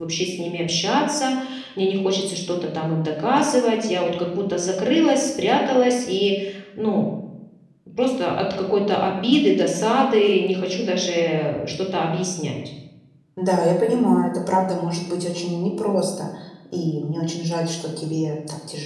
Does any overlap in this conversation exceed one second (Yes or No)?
No